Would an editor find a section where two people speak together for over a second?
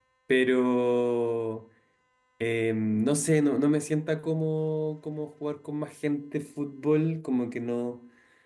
No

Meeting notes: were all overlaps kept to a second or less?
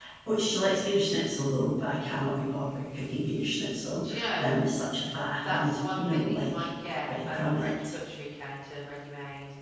No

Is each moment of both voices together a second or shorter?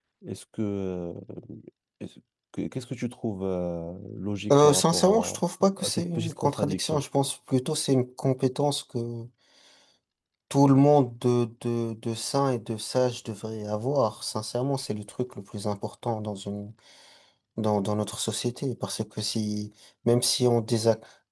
No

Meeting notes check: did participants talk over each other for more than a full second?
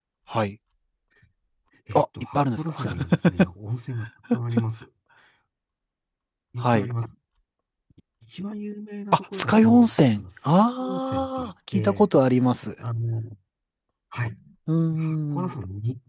Yes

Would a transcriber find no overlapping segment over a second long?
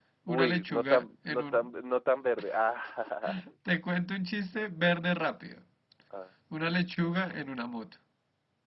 No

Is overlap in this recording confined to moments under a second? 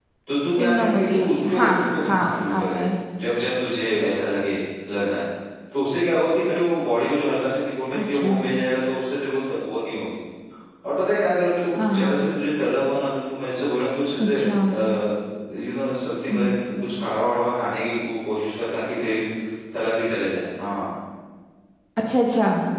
No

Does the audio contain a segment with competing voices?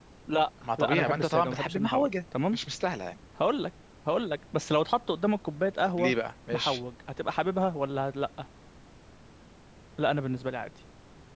Yes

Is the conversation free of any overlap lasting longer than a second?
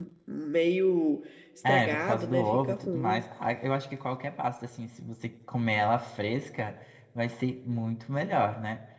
No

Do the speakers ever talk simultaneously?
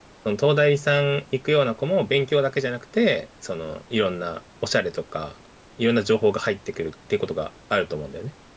No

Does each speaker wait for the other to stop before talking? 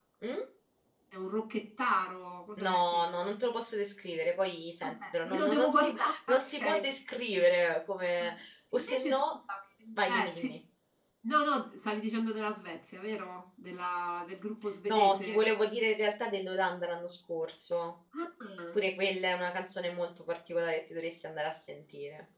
No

